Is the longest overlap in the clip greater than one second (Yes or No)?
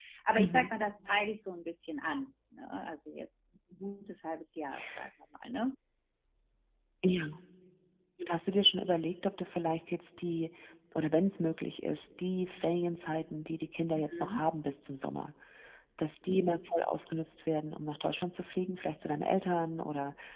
No